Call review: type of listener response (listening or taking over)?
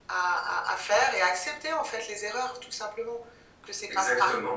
listening